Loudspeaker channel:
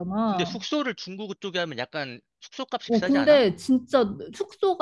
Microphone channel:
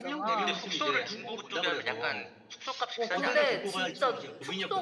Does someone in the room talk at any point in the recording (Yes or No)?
Yes